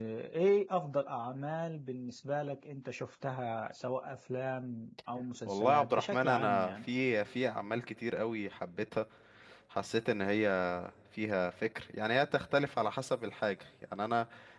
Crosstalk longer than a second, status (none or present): present